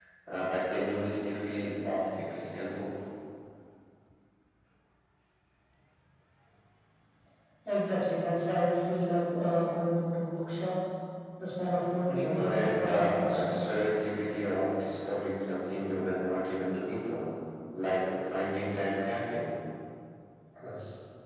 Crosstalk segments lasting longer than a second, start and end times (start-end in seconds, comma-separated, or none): 12.1-13.7